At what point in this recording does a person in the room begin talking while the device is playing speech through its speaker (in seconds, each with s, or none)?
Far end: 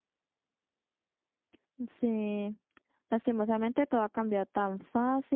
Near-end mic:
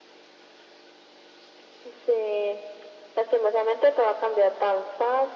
none